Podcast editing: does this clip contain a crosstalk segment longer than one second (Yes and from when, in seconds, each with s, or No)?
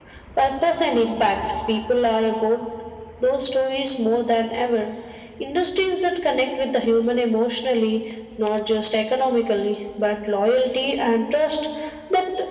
No